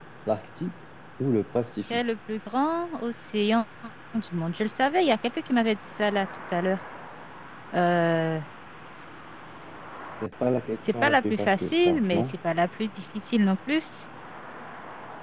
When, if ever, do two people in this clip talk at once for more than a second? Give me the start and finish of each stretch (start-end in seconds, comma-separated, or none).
11.0-12.3